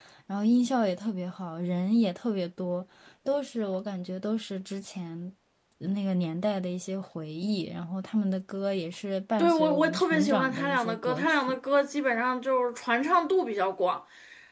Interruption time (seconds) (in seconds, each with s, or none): 9.4 s